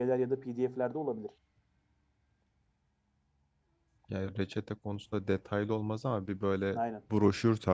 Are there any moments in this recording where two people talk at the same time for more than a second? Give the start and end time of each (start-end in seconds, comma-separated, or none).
none